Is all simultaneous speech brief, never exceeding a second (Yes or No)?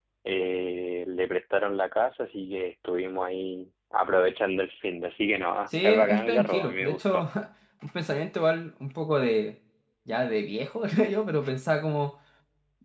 No